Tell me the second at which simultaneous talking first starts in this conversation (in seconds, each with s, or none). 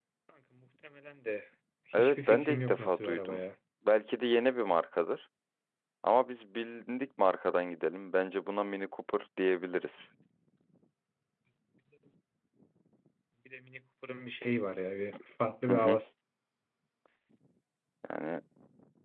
2.0 s